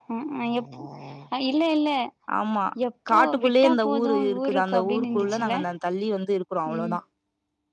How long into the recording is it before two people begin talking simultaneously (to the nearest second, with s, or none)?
3 s